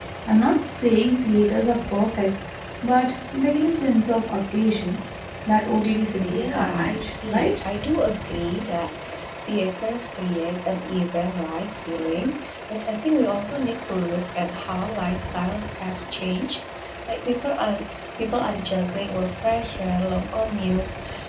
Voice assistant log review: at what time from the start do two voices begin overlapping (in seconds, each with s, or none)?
6.3 s